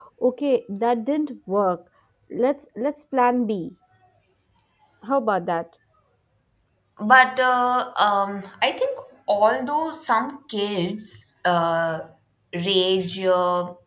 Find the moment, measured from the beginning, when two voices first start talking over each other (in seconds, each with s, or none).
none